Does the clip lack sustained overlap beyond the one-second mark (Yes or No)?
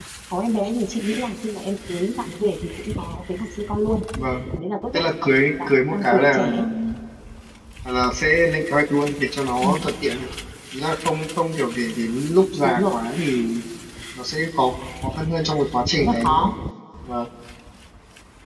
No